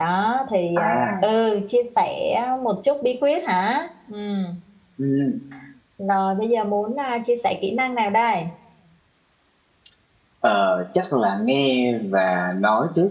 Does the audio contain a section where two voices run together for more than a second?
No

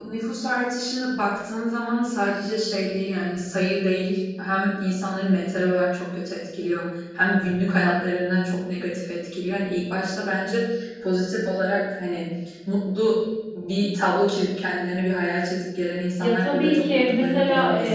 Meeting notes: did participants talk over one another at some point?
Yes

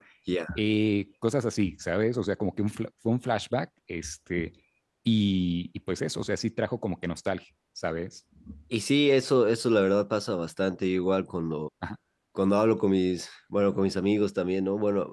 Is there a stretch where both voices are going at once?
No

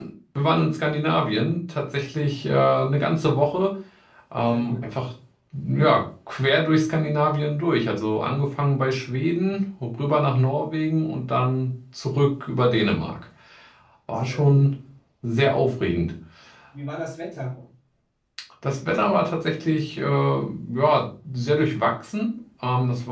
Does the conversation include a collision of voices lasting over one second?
No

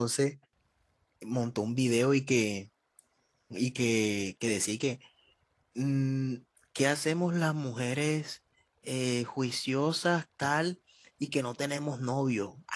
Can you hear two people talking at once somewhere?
No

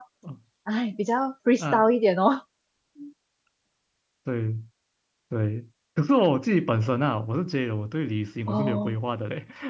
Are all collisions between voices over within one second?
Yes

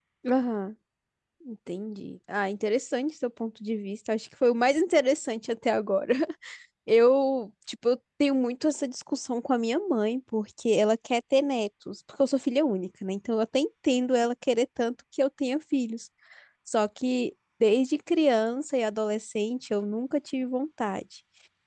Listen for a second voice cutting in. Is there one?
No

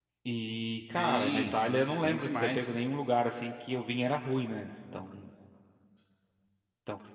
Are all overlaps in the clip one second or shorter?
No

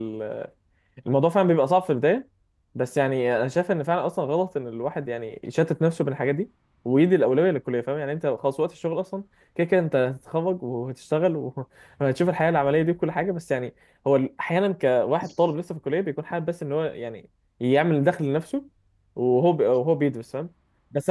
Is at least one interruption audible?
No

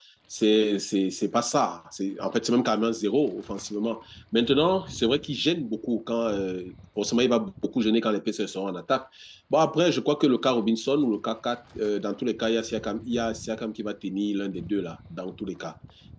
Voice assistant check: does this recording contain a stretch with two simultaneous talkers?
No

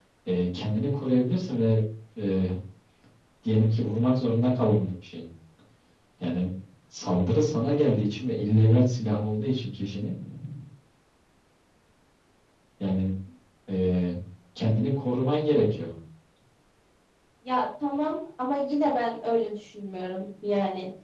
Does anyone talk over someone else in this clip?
No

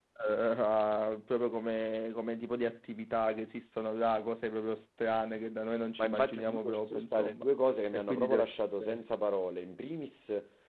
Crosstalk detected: Yes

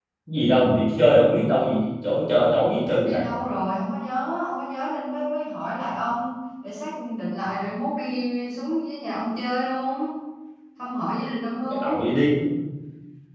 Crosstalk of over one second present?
No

